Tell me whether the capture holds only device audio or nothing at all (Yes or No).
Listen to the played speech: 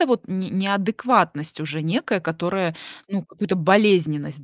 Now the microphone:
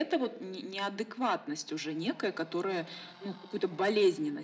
Yes